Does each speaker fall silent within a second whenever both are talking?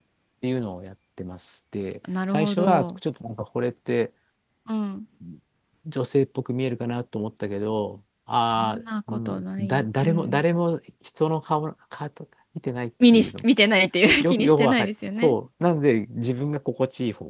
No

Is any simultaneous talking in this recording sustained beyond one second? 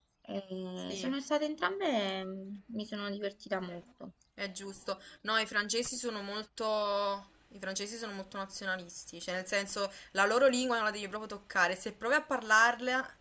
No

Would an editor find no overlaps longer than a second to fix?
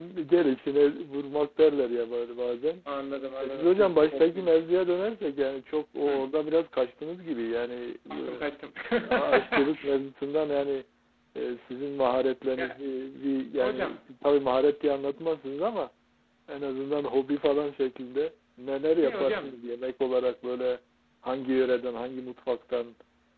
No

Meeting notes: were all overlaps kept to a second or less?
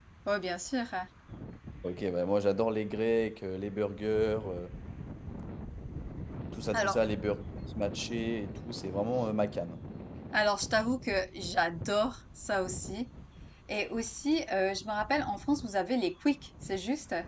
Yes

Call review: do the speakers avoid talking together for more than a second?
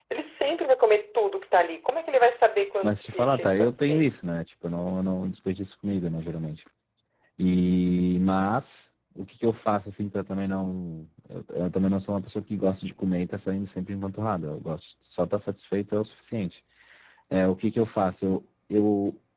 No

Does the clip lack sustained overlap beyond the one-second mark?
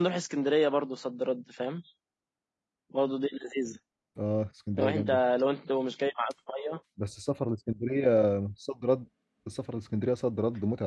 Yes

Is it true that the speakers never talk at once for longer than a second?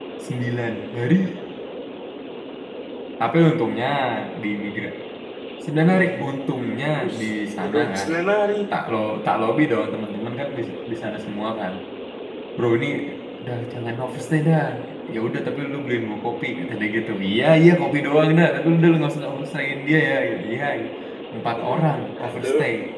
Yes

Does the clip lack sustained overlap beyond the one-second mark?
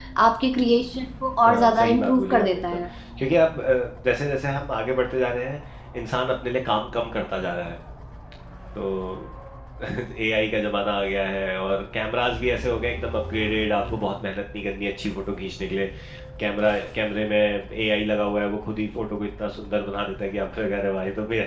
No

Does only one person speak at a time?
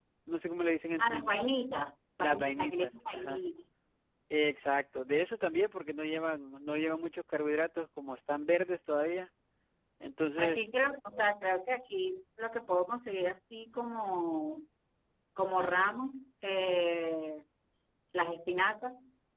No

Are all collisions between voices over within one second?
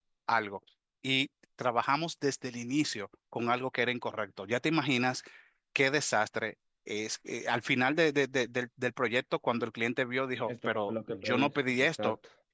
No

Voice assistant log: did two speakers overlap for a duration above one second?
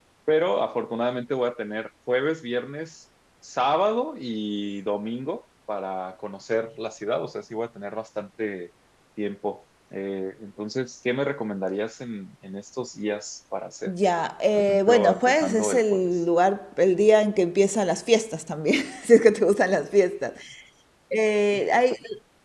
Yes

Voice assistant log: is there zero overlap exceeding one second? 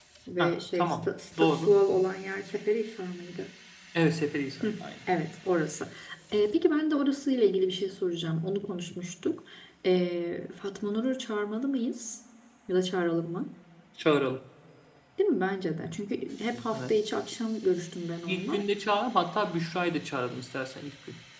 No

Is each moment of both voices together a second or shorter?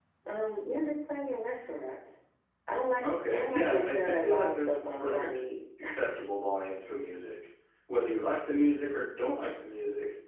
No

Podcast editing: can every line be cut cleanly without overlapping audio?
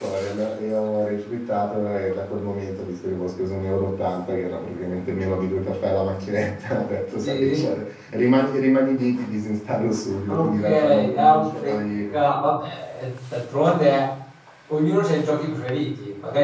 No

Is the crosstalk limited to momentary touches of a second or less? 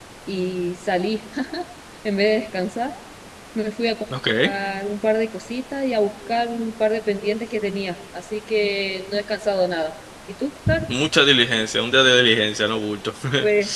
Yes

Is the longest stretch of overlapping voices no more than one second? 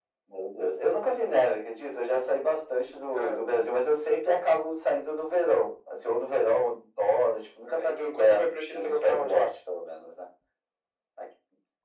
No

